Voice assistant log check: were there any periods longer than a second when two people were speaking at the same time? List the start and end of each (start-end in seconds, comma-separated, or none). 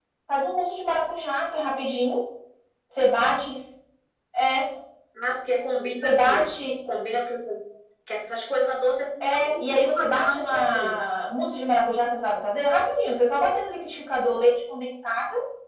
9.2-11.0